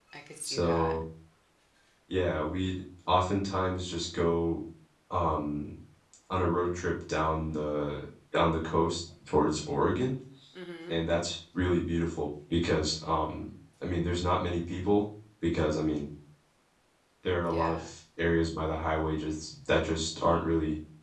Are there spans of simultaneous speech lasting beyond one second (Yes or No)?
No